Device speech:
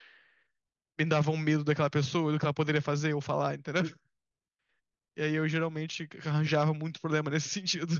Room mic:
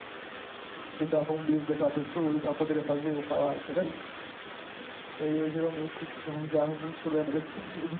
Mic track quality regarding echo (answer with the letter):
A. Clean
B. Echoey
B